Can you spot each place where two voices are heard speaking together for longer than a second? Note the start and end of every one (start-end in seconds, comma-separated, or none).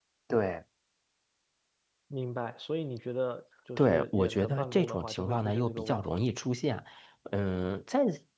3.8-6.2